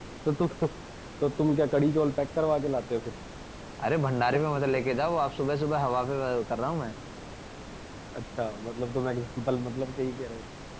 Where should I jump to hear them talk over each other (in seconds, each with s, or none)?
none